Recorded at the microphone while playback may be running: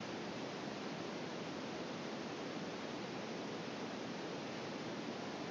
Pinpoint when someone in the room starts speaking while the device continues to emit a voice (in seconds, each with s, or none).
none